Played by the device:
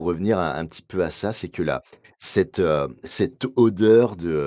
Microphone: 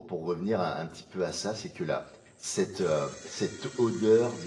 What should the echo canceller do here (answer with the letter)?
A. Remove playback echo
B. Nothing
A